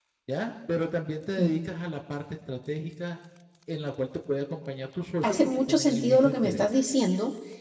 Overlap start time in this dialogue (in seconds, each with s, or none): 5.2 s